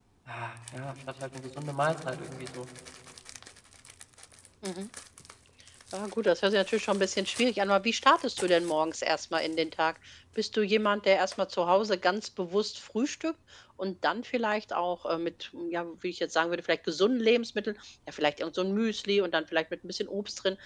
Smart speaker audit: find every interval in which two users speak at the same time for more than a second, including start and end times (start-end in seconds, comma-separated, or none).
none